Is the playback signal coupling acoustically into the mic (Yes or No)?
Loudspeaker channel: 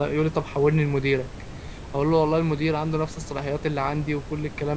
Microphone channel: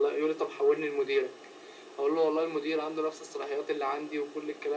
Yes